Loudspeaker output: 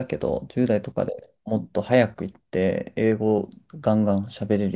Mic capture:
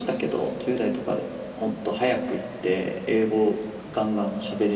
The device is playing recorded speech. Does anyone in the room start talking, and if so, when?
none

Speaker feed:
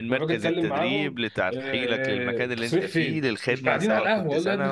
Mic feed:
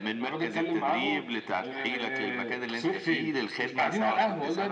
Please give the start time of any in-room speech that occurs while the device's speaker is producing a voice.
none

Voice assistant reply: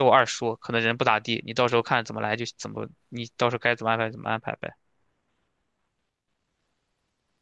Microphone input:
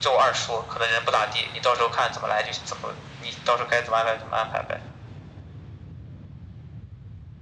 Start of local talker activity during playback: none

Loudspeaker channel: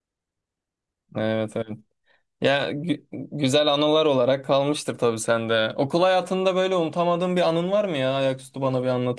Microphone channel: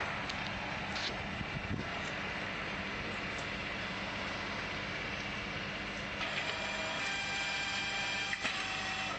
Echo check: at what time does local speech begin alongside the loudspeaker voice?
none

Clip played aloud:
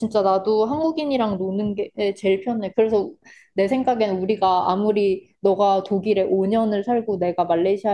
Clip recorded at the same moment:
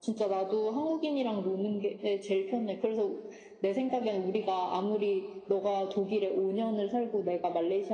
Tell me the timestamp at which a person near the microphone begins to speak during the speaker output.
none

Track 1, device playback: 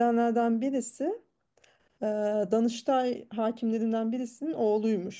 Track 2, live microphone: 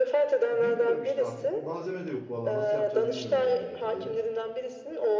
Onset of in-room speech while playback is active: 0.5 s

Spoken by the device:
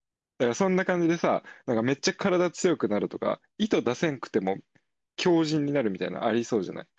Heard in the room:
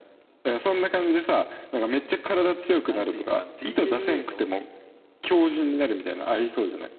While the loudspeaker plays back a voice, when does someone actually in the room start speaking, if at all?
2.8 s

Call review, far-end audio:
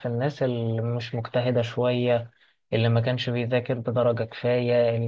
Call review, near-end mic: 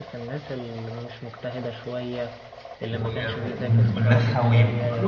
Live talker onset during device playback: 2.9 s

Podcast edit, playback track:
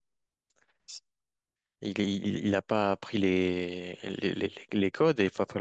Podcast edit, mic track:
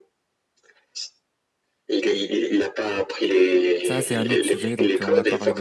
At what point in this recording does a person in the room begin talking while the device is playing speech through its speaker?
3.8 s

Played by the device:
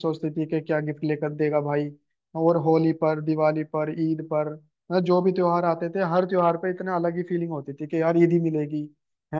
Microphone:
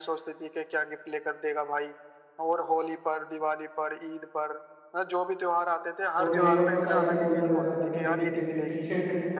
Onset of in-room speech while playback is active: 6.2 s

